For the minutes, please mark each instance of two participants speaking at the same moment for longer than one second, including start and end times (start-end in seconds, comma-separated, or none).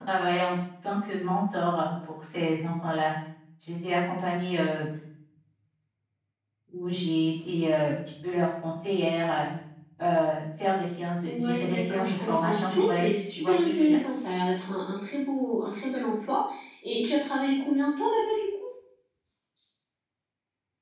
11.2-14.0